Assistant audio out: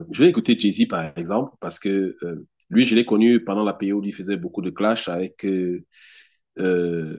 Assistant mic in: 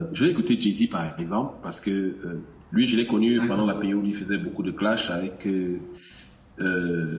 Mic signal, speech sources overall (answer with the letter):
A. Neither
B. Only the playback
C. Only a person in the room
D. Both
D